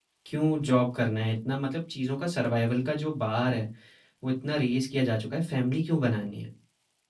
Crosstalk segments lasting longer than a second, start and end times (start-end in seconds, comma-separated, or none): none